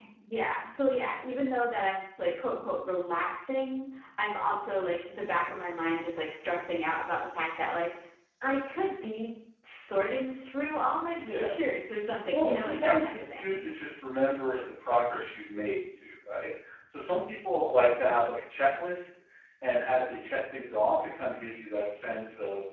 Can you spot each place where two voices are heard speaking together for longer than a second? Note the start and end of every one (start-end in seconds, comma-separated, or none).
12.3-13.6